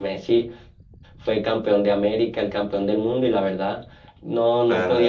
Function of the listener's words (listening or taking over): taking over